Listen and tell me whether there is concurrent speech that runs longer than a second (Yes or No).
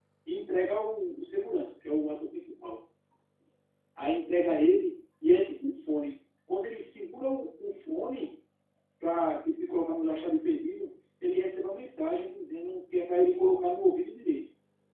No